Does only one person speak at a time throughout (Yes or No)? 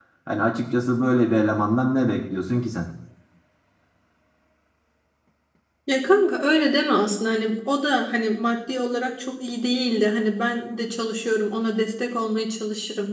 Yes